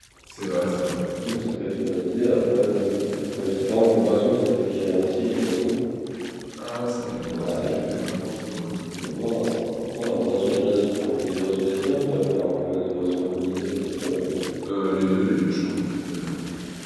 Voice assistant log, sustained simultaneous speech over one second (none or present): none